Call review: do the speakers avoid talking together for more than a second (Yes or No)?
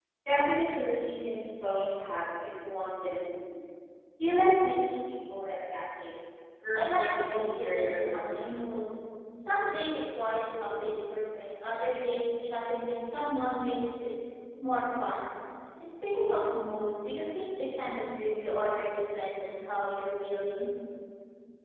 No